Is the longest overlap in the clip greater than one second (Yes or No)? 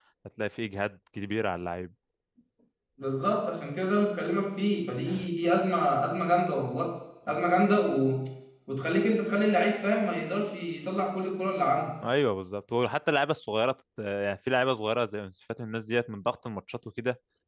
No